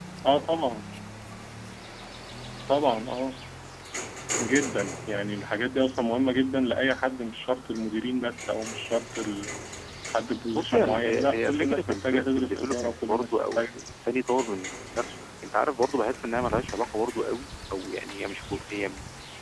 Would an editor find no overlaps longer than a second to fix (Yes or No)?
No